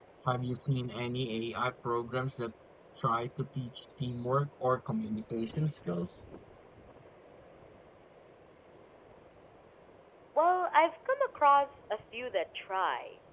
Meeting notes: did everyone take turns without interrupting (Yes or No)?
Yes